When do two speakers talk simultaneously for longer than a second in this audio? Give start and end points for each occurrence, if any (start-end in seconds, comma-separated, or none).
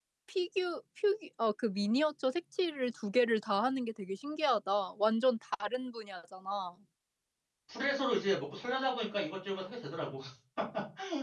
none